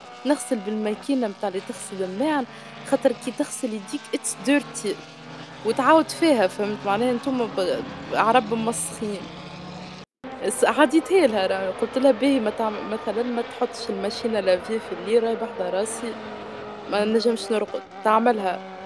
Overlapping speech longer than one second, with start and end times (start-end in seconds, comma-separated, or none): none